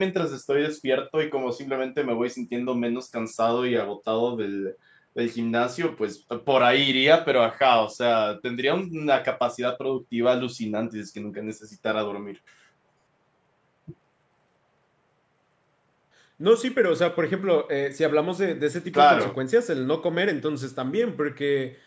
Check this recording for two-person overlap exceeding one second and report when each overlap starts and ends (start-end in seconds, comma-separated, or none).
none